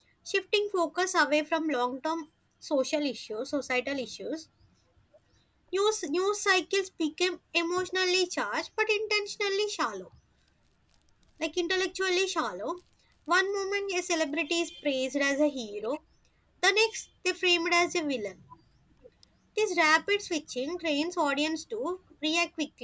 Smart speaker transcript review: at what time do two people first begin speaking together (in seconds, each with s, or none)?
none